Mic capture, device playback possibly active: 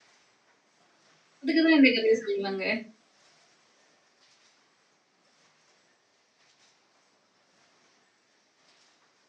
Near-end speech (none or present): present